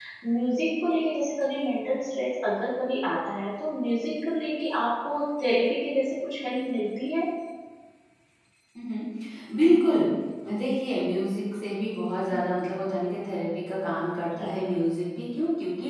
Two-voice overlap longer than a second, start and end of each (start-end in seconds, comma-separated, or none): none